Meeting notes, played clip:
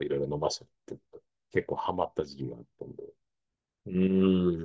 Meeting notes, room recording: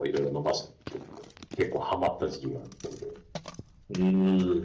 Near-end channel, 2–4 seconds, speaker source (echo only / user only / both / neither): echo only